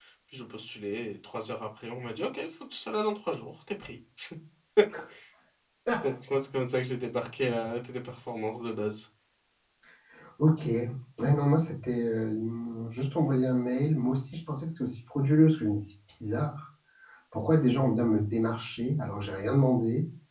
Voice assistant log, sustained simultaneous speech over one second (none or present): none